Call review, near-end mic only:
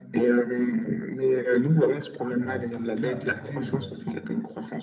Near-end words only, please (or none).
euh, peut, peut impacter euh,